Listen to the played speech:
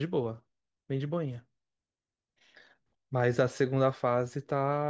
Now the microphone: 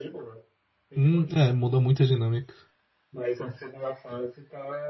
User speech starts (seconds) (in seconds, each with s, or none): 1.0 s